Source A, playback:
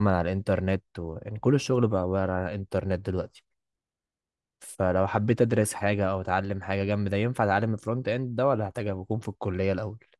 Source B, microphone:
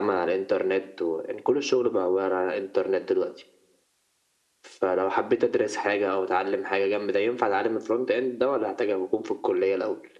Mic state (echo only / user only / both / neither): echo only